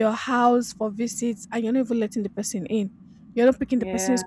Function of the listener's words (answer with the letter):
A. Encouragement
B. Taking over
A